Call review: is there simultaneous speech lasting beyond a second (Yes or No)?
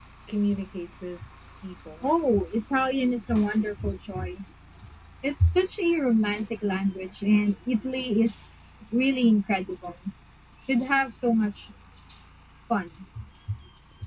No